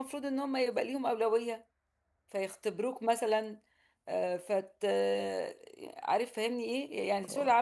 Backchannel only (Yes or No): Yes